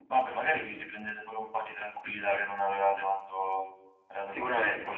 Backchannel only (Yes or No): No